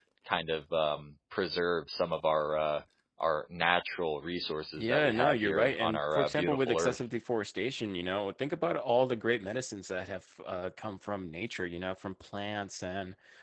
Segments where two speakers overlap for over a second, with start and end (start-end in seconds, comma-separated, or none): 4.8-7.0